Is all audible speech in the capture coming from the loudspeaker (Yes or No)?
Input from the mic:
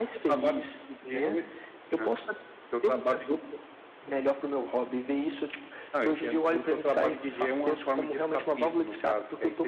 Yes